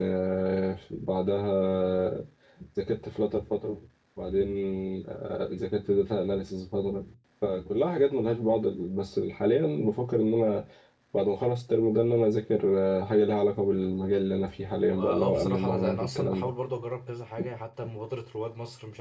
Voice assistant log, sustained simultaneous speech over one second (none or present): present